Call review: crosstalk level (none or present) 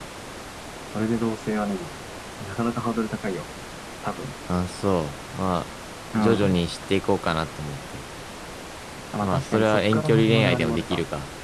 present